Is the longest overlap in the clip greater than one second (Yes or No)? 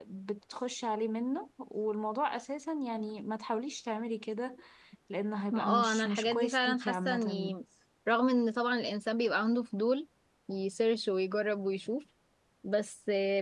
Yes